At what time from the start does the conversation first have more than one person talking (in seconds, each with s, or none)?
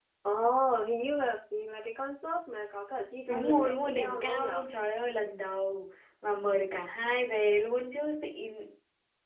3.3 s